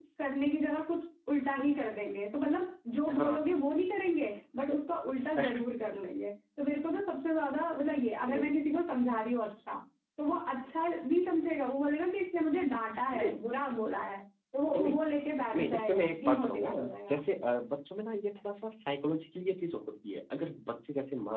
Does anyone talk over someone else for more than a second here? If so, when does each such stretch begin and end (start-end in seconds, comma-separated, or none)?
15.6-17.2